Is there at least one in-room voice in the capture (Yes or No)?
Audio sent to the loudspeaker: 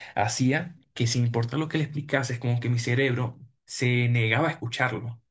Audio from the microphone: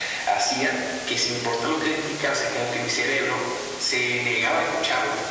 No